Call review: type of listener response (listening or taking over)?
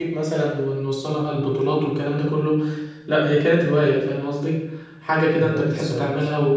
listening